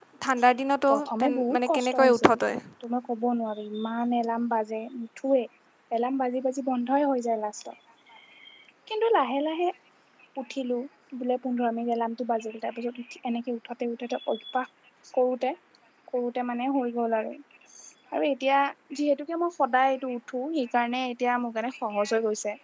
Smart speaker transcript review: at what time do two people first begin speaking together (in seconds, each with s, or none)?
0.9 s